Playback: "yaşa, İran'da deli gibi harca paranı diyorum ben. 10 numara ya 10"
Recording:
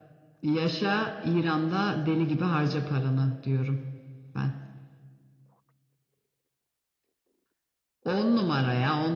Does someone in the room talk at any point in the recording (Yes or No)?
No